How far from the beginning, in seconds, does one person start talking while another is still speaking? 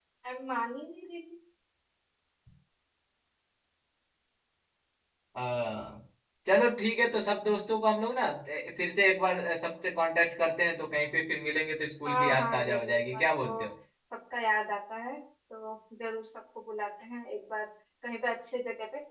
12.1 s

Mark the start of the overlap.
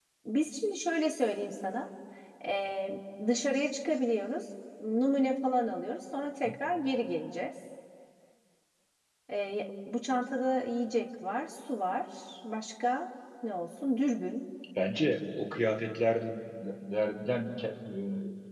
none

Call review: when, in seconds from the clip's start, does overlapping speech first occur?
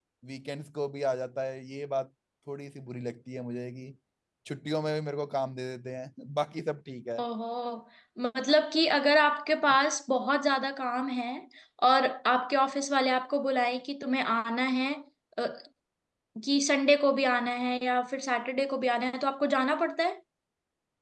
none

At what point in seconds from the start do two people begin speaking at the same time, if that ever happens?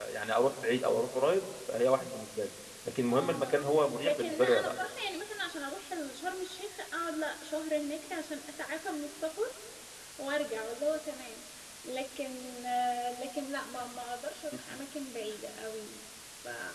3.1 s

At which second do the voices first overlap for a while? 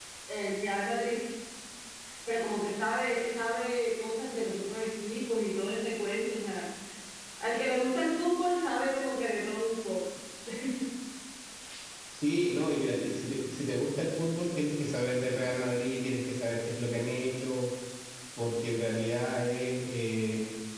none

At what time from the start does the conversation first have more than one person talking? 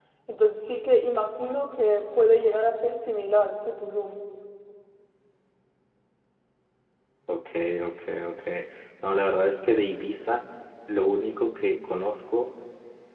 none

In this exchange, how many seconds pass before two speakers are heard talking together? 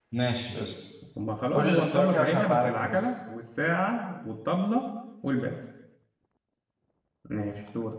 1.5 s

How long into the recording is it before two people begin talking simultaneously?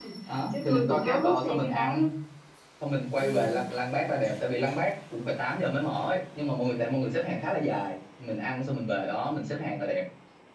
0.5 s

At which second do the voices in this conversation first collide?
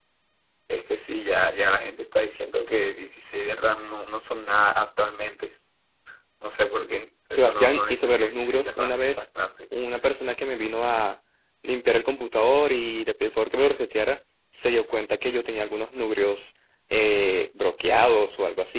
7.3 s

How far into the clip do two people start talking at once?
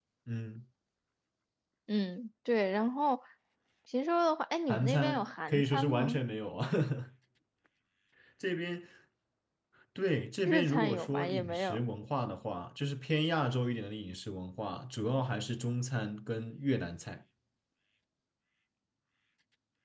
4.7 s

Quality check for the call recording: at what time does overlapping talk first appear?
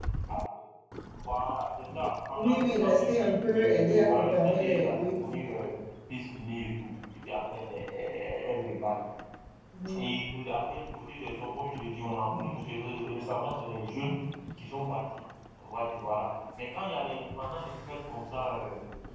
2.3 s

